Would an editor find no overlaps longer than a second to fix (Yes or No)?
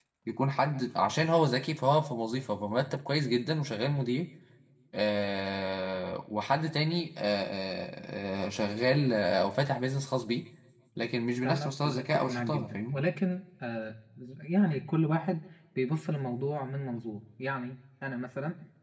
No